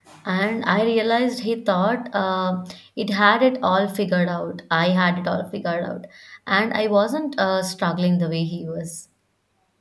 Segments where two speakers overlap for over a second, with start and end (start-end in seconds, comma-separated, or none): none